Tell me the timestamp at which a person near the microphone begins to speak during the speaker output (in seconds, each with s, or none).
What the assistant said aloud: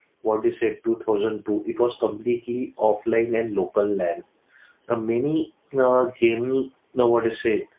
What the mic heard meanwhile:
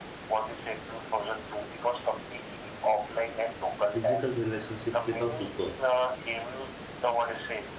3.9 s